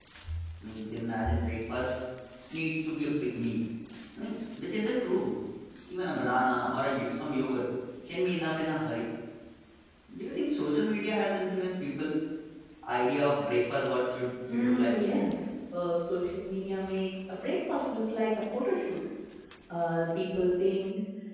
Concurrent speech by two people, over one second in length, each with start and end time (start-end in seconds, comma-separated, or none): none